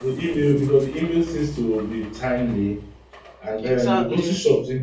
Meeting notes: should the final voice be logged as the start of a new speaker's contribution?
No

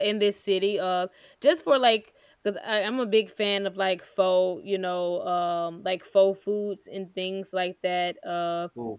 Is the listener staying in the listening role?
Yes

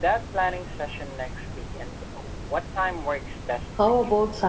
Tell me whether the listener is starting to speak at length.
Yes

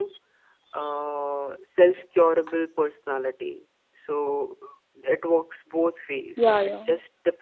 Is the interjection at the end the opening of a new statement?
No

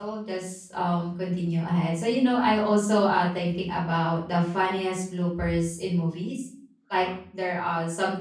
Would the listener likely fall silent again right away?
Yes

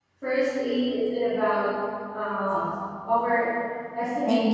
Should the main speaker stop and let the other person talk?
No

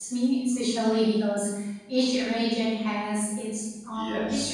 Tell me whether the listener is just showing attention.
Yes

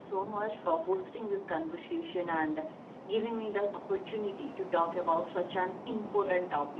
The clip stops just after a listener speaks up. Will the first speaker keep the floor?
Yes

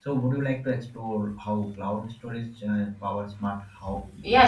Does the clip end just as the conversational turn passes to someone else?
Yes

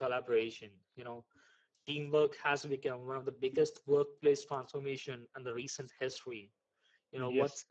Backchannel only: Yes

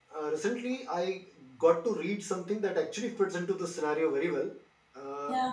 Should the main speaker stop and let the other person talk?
No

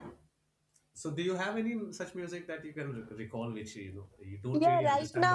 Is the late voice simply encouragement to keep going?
No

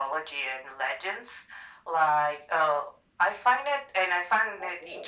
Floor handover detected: No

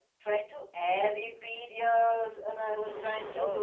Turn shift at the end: No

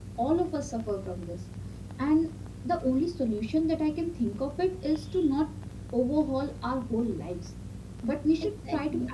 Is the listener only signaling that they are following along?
Yes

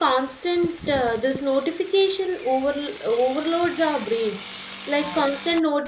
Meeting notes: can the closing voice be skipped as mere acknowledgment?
Yes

